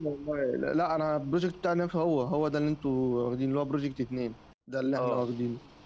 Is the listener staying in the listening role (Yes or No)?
No